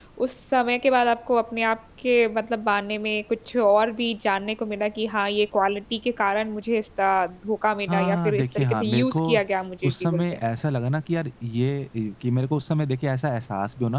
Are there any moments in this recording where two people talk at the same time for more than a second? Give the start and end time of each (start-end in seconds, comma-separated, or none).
7.9-9.4